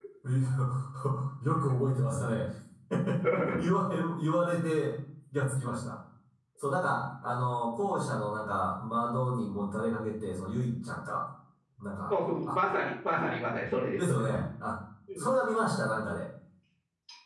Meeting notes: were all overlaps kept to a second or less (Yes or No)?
Yes